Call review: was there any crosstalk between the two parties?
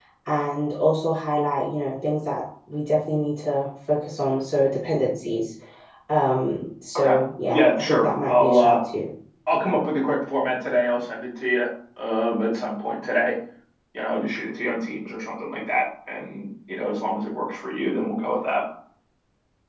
Yes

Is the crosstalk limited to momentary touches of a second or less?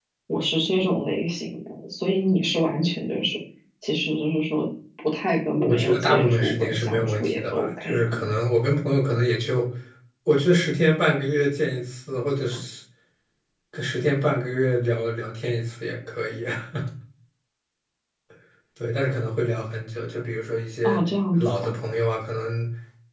No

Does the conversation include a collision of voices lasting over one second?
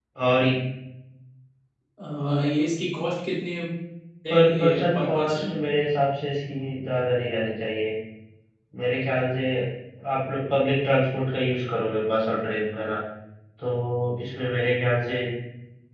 Yes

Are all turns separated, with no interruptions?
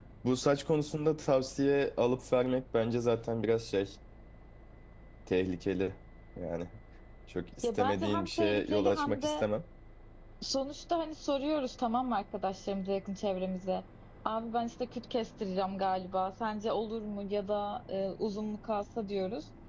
No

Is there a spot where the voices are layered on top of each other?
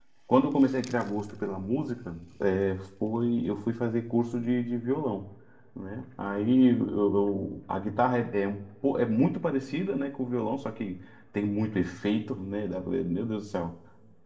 No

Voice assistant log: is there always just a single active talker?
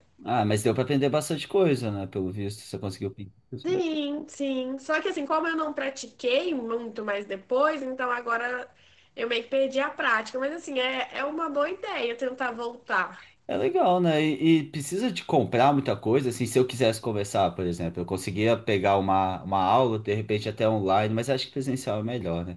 Yes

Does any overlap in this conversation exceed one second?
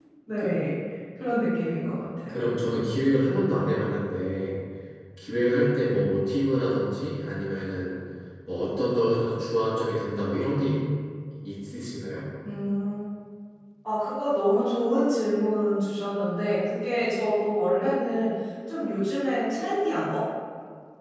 No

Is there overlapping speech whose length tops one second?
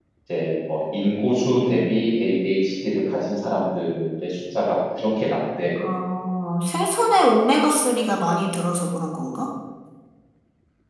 No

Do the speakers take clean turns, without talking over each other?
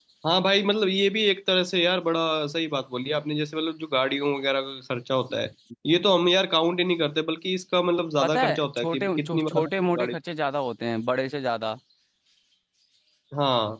No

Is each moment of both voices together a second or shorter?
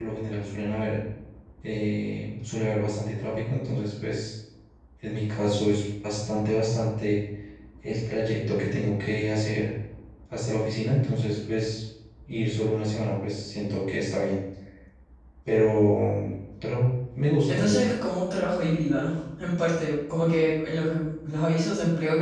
Yes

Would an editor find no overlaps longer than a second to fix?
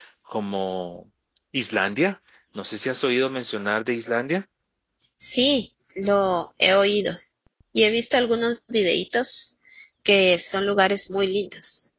Yes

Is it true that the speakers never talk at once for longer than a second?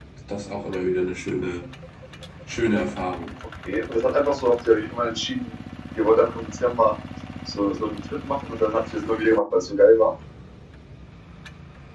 Yes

